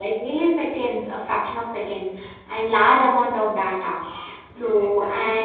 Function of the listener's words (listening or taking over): listening